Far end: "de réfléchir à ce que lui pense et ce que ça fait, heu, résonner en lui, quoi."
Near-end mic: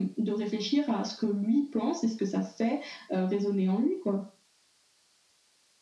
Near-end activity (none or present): none